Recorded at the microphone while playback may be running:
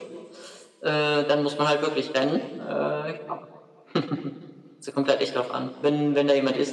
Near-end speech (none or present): none